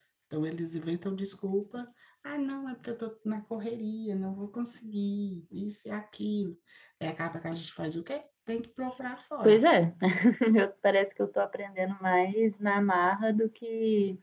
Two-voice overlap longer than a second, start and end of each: none

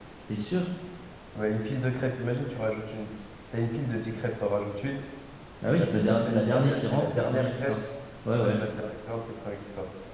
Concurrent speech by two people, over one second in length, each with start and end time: 5.8-7.7

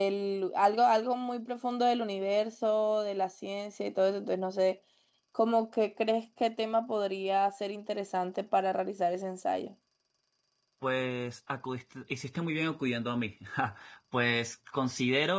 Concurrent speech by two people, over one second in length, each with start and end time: none

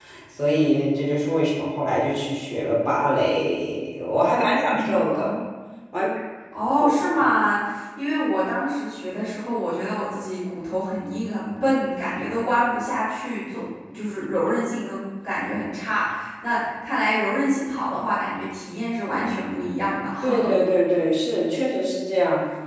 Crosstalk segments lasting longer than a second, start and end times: none

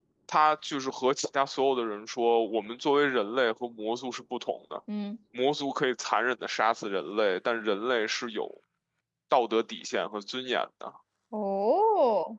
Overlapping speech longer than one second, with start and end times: none

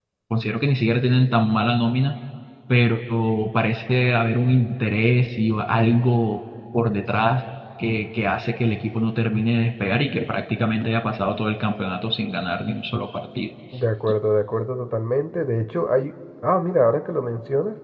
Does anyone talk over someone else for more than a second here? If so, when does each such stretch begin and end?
none

